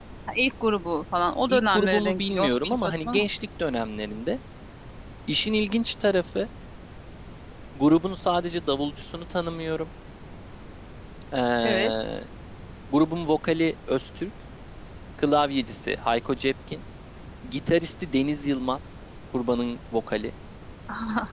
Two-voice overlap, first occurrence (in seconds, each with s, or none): 1.5 s